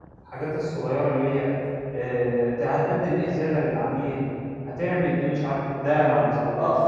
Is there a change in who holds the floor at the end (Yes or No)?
Yes